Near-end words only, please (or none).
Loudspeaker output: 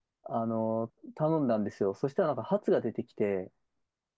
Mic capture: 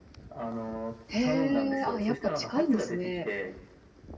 へー、あ、やっぱ近いんですね。